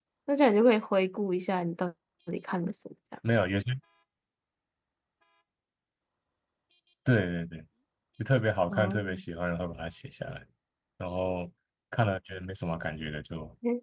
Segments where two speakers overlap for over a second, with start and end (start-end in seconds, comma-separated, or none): none